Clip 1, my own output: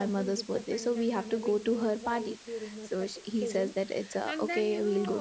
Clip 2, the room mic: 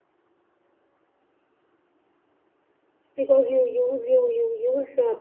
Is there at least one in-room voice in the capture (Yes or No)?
Yes